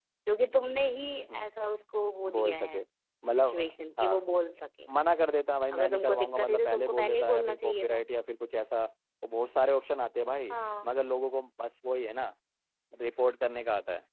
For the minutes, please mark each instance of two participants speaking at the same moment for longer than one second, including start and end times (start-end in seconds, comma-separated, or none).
5.7-8.0